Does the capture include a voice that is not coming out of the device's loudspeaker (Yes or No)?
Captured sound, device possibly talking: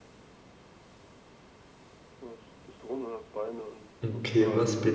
Yes